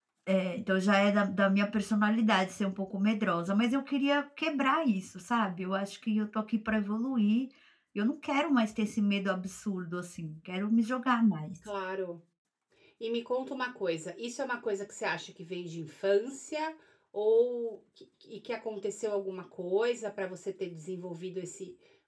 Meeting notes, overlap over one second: none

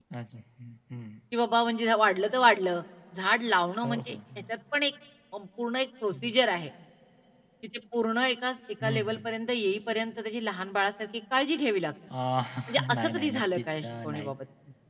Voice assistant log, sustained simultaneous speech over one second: present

